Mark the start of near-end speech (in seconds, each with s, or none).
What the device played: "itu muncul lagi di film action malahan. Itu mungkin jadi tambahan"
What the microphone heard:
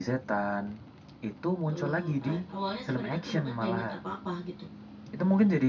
1.7 s